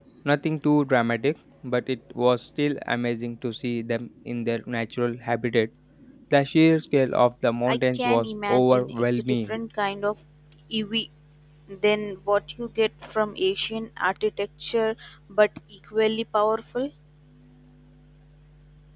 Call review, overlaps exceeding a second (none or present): present